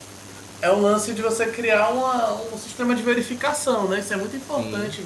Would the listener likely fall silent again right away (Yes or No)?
Yes